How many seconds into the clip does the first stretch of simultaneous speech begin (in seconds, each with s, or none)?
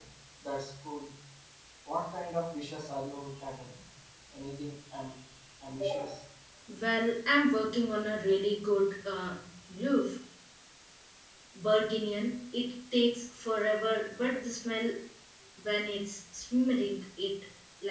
none